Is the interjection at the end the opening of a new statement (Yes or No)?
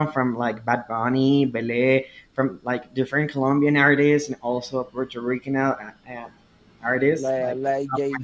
Yes